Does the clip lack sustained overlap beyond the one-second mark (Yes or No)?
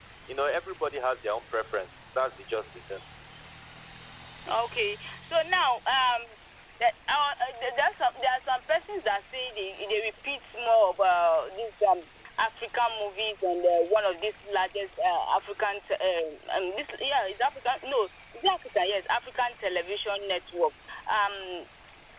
Yes